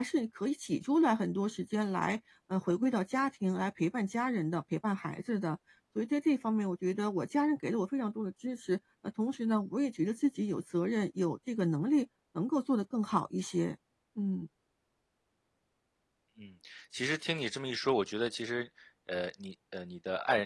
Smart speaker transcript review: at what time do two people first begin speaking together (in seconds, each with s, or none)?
none